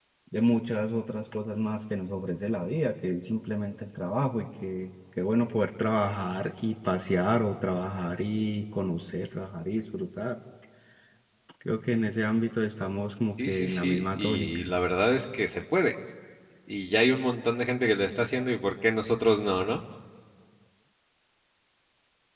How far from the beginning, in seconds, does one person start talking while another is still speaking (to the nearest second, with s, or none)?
13 s